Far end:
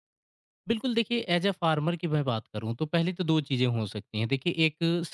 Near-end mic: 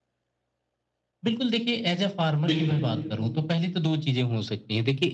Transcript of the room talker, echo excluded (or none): बिल्कुल।